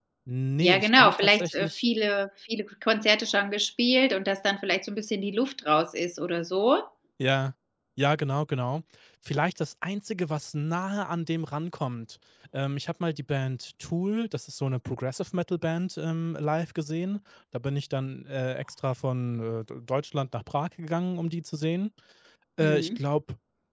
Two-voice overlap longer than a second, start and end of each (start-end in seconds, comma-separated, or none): 0.6-1.8